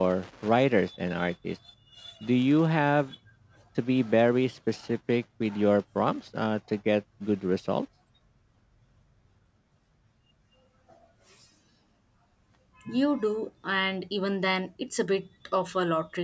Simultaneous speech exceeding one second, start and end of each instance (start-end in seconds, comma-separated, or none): none